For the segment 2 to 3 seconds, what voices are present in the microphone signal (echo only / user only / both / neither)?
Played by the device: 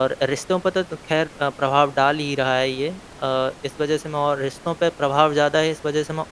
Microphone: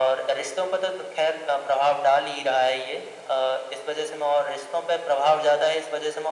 echo only